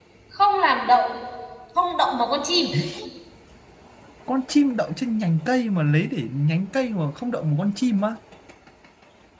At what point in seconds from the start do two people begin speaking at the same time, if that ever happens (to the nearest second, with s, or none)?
none